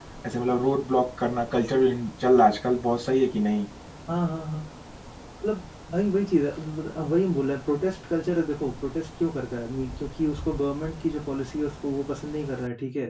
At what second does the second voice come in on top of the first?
none

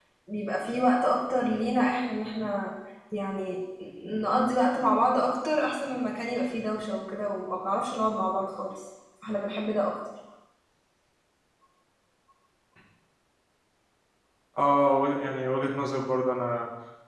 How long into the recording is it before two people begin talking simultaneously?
none

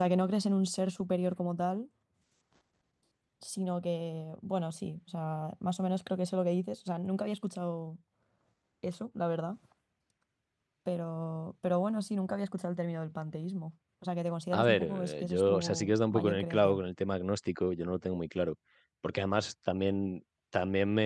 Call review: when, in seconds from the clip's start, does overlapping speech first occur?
14.5 s

